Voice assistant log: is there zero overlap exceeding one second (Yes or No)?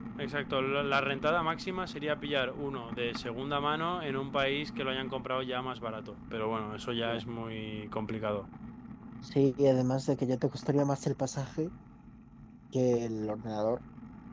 Yes